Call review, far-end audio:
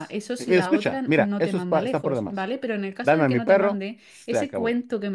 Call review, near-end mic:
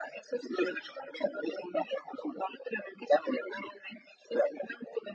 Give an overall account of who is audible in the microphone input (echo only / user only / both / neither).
echo only